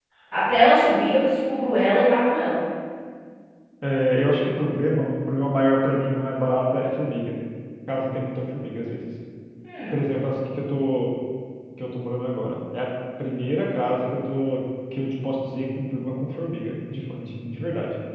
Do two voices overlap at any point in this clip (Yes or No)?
No